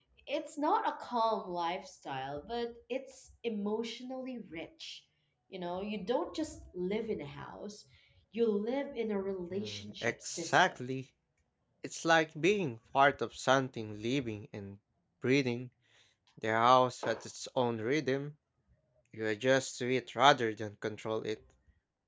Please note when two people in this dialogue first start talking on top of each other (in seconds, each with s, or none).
9.5 s